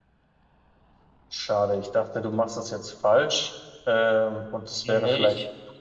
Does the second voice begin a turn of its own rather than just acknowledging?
No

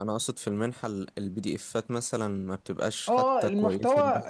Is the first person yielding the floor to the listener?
Yes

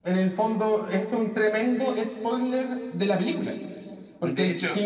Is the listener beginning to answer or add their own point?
No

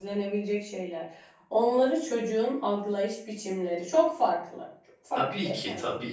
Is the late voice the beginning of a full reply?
Yes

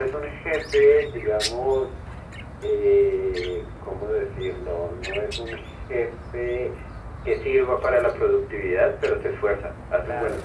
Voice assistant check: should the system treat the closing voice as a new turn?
Yes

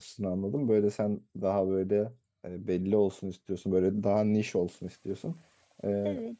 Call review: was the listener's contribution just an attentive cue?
Yes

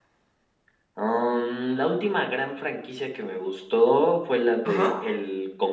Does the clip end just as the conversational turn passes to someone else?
No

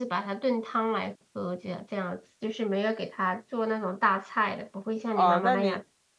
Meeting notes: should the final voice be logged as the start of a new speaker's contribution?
Yes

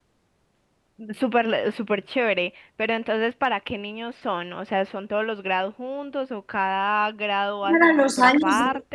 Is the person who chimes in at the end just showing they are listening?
No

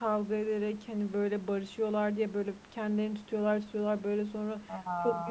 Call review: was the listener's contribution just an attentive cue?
Yes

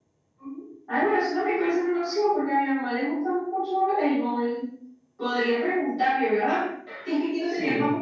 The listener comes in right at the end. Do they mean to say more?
No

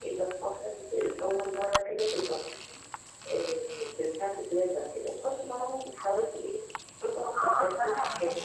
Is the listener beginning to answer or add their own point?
Yes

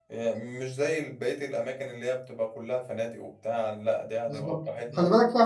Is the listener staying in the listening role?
No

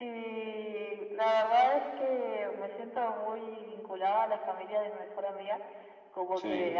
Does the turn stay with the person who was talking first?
Yes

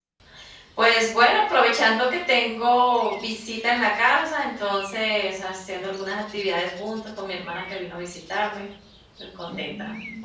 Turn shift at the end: Yes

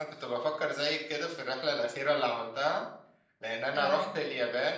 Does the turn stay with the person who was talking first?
Yes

